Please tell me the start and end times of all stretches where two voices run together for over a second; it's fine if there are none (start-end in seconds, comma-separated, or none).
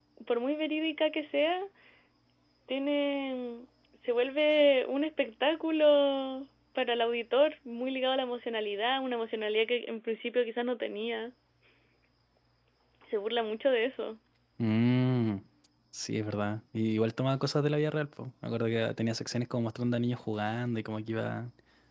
none